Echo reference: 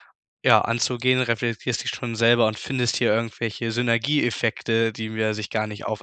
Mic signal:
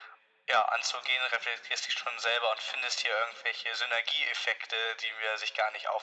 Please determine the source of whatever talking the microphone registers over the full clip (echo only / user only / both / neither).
echo only